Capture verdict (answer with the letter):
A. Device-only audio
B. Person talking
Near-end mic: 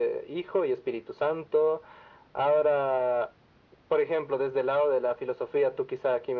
A